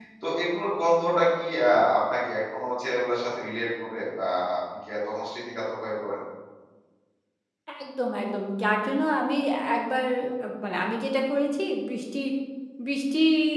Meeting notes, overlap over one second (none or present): none